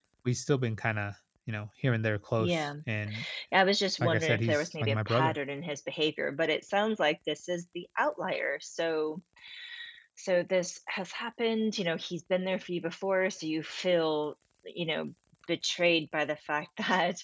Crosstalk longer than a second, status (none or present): present